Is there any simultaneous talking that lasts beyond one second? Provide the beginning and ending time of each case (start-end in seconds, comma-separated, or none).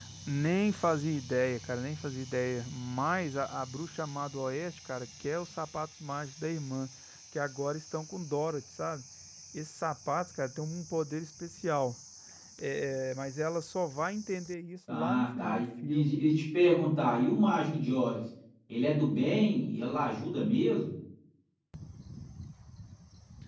14.9-16.2